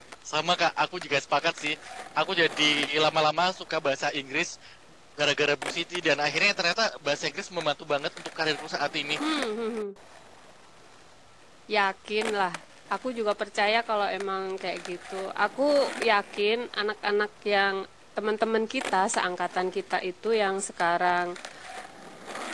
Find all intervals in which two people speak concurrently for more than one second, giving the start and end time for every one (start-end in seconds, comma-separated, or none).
none